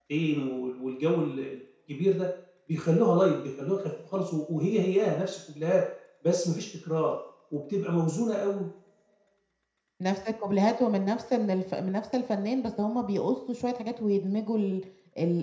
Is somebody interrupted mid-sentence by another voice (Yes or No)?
No